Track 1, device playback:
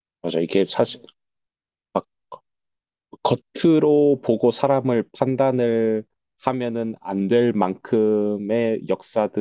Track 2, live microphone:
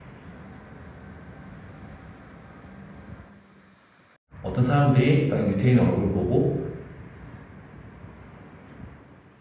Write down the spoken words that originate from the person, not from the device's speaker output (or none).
어떤 사람들이 딱 유태인 얼굴을 보고